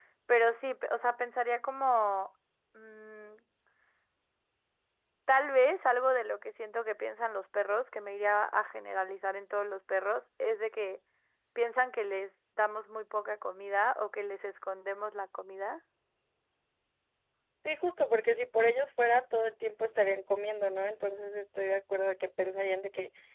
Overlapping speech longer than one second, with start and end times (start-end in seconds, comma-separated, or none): none